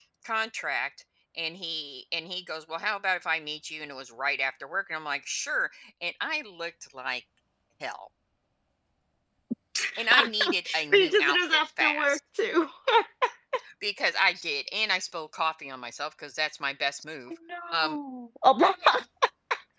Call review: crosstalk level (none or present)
present